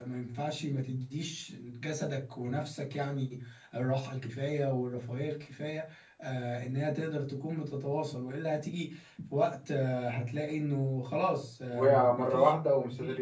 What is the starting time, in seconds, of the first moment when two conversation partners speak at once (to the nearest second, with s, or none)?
12 s